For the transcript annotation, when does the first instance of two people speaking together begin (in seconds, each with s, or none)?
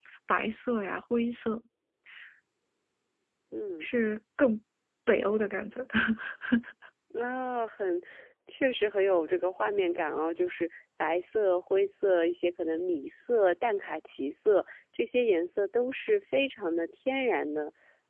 none